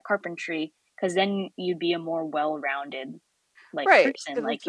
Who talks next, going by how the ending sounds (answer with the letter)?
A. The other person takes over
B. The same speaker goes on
A